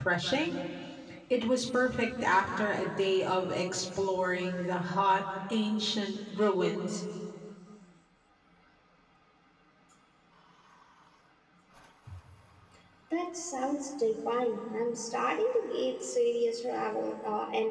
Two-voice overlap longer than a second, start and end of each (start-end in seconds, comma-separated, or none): none